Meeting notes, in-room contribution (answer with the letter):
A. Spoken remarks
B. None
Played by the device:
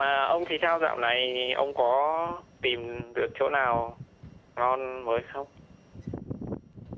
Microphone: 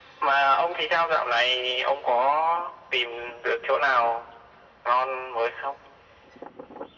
B